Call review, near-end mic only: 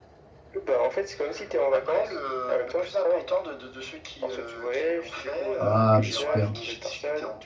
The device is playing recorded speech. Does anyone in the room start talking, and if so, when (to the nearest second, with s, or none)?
6 s